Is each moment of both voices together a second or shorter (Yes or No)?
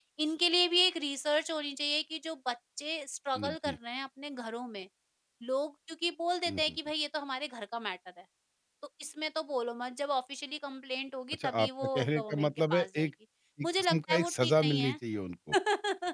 No